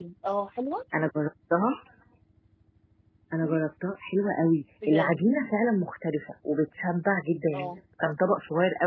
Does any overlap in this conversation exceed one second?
No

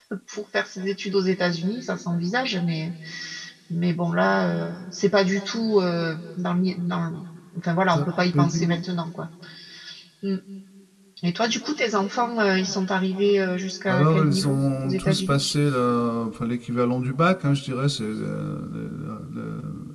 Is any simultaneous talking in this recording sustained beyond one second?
Yes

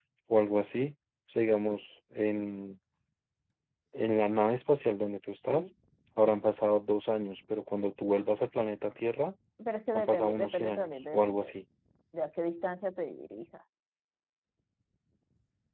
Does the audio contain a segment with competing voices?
Yes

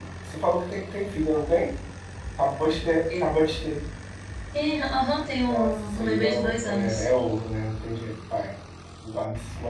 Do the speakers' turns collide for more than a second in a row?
Yes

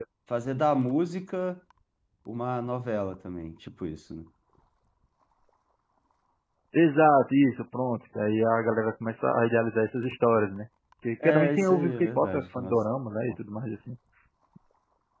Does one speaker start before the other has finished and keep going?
Yes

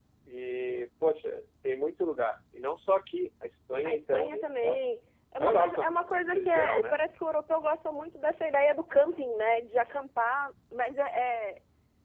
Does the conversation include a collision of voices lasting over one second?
Yes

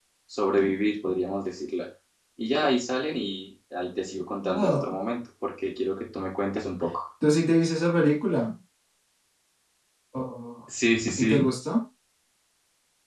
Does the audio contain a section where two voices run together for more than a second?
No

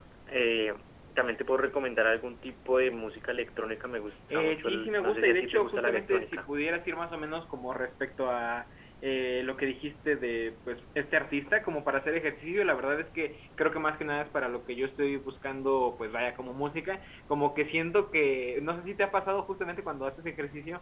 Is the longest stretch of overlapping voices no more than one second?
No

